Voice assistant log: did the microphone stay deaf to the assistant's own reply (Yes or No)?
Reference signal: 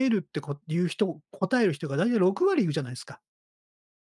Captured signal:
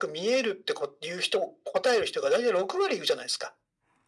No